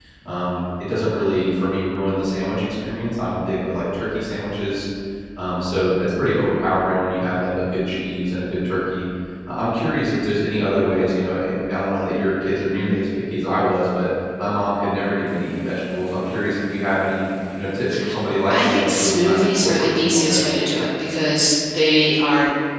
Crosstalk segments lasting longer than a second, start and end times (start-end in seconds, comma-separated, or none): 18.5-20.8